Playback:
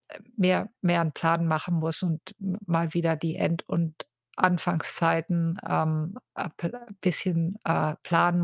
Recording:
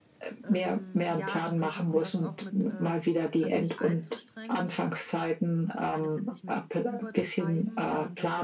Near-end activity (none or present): present